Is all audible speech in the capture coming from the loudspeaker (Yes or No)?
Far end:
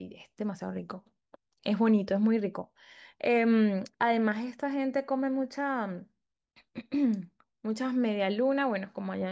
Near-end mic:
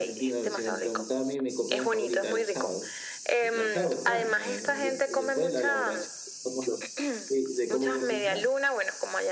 No